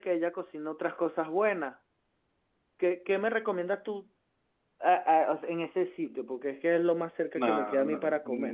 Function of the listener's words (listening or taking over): taking over